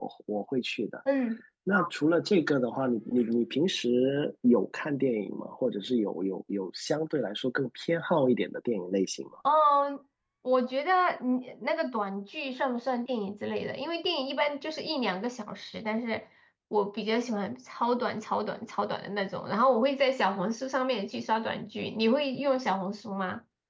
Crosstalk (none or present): none